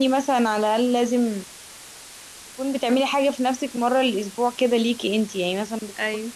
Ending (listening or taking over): listening